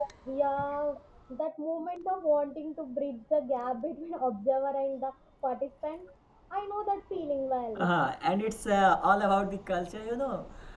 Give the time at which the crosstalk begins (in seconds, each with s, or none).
none